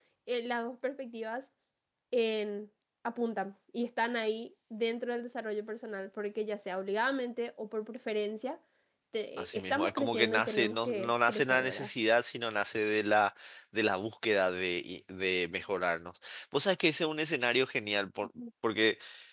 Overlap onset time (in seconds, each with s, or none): 9.4 s